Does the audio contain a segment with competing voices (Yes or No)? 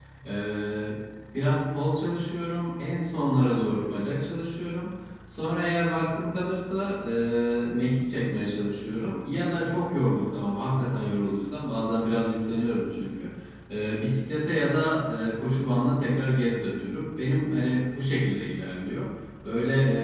No